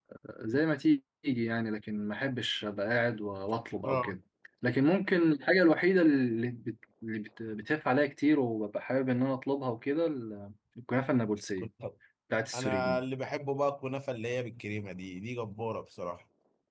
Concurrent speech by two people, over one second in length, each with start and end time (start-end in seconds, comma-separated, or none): none